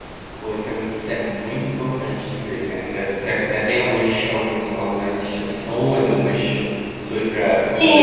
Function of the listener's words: taking over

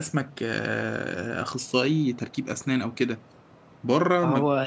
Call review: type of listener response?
listening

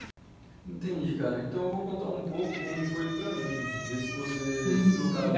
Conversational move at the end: taking over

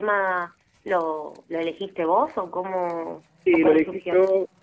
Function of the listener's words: taking over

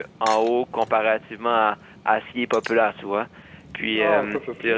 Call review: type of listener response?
taking over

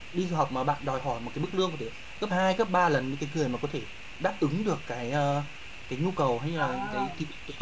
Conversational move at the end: listening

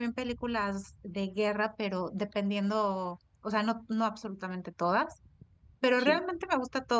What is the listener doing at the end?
listening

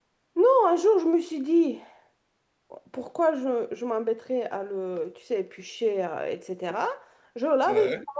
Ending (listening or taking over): listening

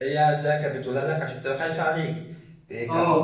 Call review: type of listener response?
listening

